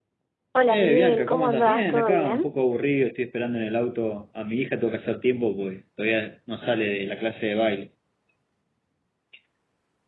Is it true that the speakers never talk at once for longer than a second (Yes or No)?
No